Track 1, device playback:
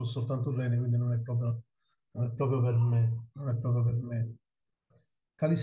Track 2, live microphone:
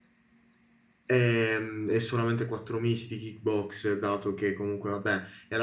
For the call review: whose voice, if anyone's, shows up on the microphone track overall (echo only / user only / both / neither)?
user only